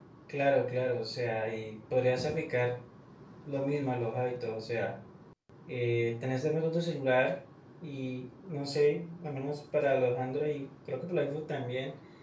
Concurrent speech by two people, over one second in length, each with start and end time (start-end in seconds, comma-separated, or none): none